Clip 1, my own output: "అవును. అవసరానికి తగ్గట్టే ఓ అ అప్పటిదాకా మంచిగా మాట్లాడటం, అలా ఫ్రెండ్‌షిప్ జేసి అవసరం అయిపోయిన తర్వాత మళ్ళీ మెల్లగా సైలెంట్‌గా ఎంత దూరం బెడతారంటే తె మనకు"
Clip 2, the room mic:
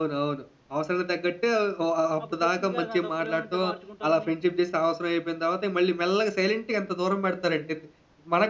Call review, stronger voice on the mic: echo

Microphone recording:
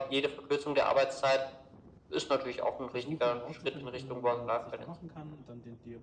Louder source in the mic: echo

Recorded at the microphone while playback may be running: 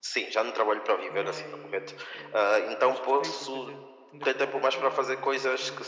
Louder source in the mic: echo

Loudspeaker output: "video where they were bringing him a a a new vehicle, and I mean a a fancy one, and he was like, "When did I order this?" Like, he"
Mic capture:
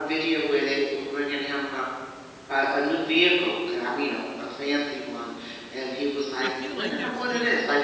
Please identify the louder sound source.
echo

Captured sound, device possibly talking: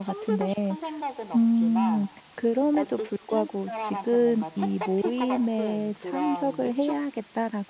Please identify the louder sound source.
user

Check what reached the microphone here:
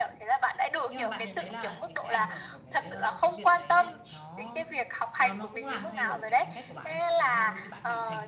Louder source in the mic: echo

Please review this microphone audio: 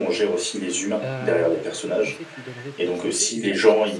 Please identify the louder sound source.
echo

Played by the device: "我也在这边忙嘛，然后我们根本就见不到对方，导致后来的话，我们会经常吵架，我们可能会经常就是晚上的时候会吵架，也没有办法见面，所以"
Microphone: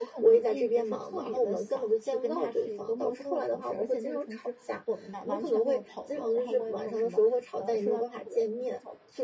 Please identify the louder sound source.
echo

